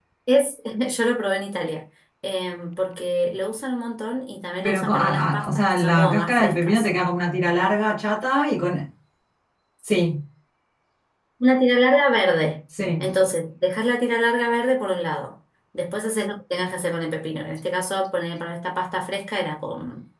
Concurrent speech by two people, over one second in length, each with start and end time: 4.6-6.9

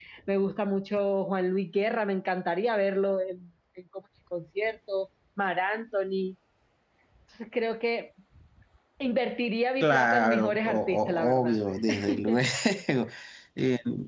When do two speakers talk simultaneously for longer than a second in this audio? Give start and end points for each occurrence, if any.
9.8-11.6

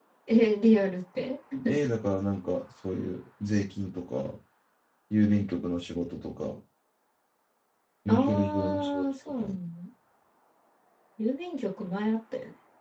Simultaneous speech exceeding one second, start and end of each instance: 8.1-9.5

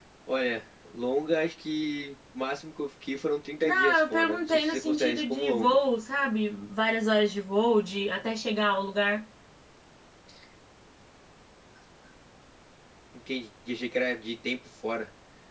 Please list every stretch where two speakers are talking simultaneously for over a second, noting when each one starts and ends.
3.6-5.8

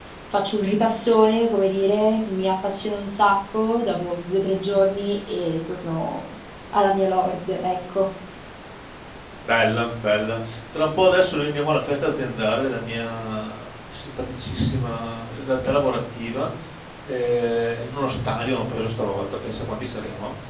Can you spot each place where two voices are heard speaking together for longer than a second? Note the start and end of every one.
none

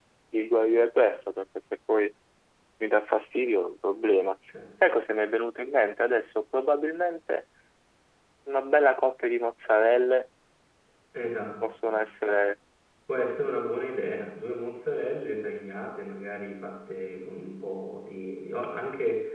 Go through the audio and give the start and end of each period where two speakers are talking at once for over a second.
none

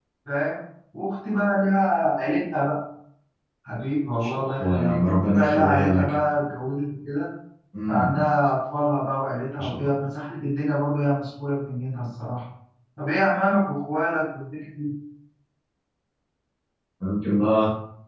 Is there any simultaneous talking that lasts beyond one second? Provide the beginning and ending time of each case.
4.2-6.1

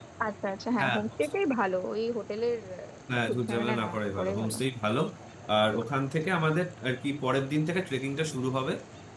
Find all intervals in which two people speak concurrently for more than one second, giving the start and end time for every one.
3.3-4.6

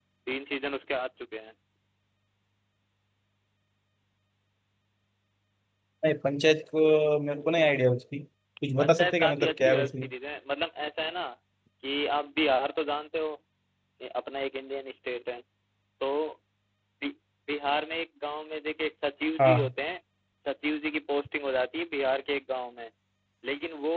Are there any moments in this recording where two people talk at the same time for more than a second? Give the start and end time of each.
8.8-10.1

